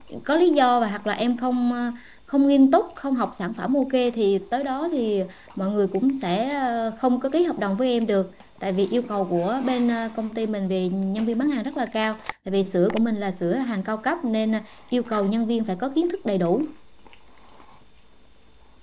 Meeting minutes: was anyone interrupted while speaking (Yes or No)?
No